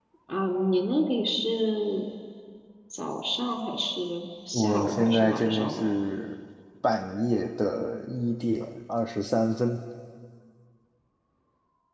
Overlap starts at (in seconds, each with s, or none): 4.5 s